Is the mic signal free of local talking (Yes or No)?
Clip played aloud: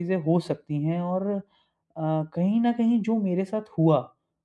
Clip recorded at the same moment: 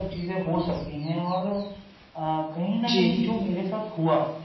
No